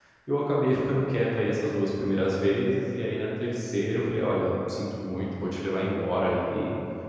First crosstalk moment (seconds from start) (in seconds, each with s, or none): none